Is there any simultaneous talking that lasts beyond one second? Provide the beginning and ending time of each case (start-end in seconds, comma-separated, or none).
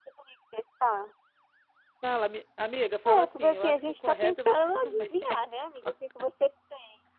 3.1-5.6